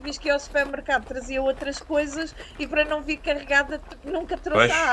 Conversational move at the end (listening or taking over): taking over